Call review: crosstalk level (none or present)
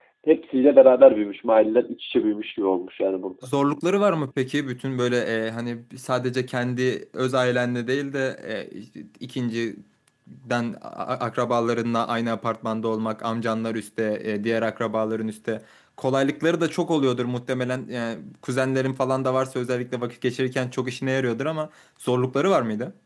none